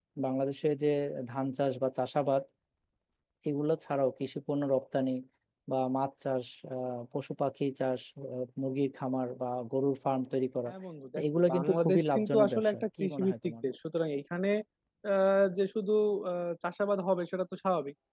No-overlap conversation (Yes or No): No